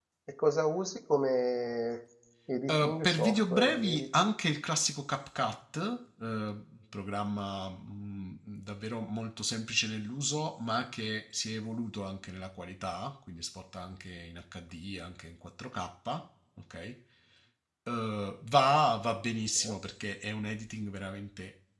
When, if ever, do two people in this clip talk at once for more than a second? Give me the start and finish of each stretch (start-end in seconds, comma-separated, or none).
2.7-4.1